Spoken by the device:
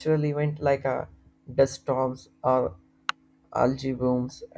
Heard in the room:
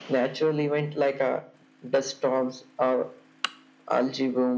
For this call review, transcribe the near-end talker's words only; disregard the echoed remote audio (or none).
none